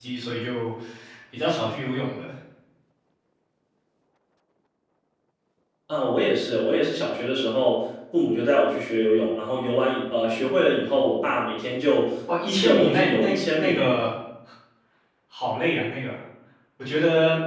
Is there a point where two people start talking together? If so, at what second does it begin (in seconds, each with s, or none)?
12.3 s